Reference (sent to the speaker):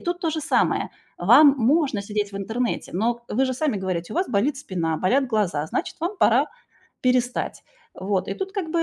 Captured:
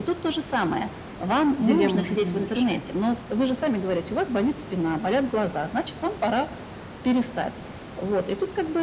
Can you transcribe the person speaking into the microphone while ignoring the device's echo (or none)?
дилемму жизненную решает.